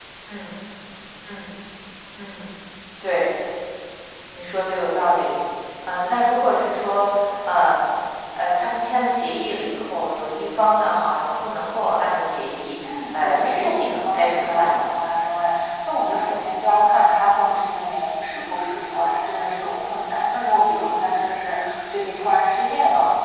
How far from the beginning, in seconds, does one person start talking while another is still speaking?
13.1 s

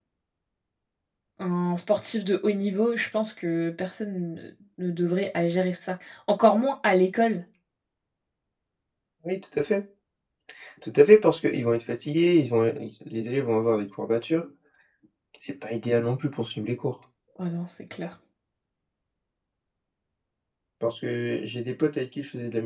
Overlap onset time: none

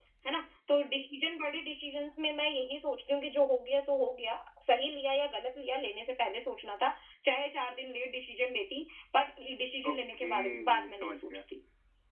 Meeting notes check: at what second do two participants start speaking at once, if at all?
9.8 s

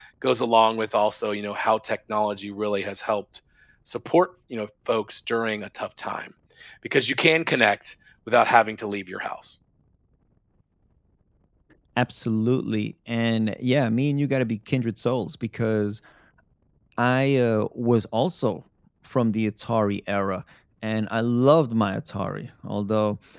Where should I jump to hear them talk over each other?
none

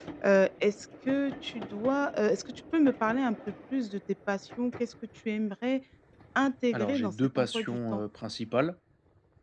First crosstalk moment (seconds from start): 6.7 s

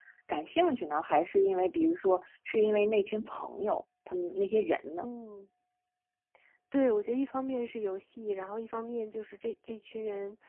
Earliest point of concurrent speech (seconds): none

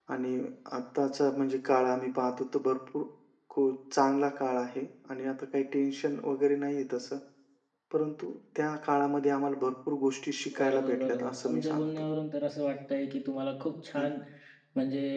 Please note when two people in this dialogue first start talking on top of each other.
10.5 s

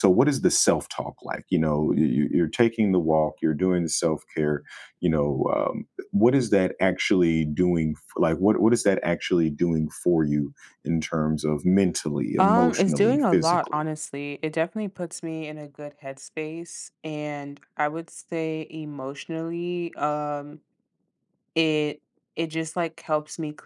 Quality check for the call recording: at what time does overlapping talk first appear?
12.4 s

